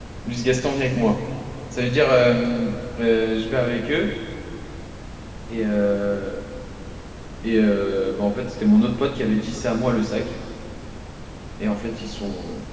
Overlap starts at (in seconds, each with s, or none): none